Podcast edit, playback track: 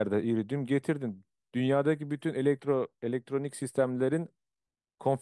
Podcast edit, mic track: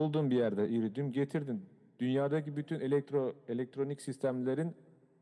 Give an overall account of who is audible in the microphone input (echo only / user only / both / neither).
echo only